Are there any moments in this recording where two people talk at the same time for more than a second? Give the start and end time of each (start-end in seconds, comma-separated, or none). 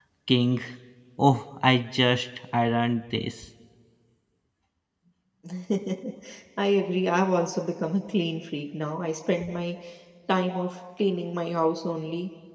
none